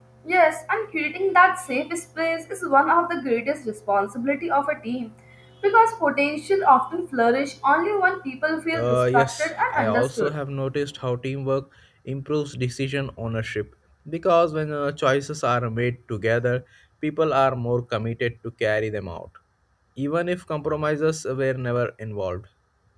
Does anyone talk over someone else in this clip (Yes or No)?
Yes